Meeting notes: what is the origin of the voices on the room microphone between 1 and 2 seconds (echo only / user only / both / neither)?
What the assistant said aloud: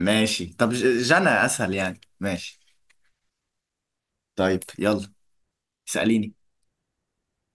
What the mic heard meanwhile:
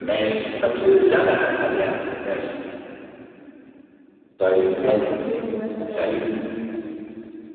echo only